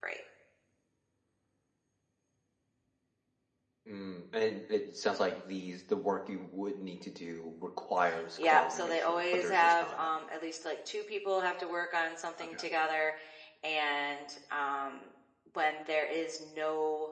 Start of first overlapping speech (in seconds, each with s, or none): 8.4 s